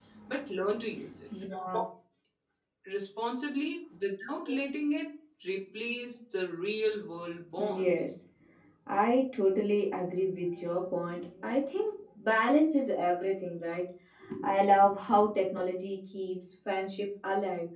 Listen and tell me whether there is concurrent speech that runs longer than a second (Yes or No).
No